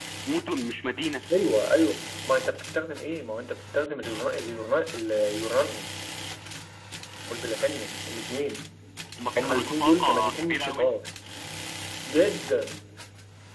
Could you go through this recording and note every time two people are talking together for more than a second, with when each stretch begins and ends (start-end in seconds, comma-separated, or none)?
9.4-10.9